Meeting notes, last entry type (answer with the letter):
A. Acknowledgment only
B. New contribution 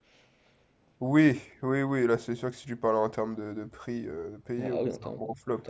B